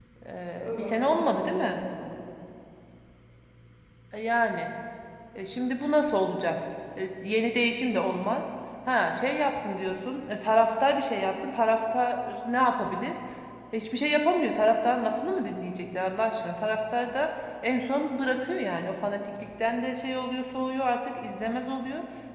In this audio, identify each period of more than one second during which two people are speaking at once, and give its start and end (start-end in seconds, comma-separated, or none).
0.6-1.8